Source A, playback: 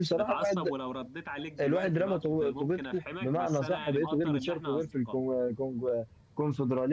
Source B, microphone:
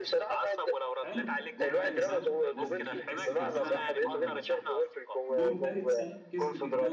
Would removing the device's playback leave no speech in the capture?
No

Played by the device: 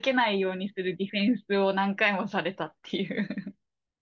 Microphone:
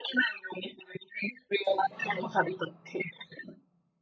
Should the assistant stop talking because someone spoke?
Yes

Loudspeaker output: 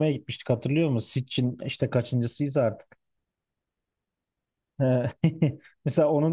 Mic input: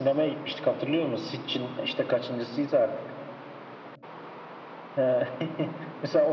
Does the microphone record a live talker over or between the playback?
No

